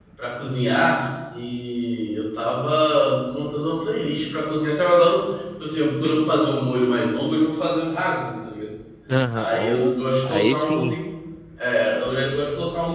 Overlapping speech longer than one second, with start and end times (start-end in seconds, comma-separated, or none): 9.3-11.0